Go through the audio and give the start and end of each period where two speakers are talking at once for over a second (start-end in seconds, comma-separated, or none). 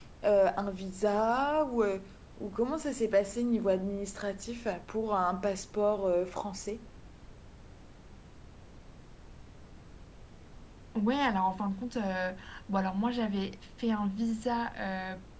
none